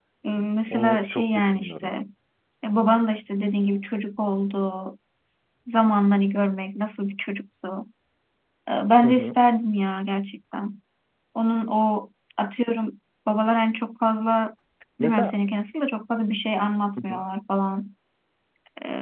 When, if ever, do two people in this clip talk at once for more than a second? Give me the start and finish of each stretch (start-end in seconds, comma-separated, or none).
0.7-1.9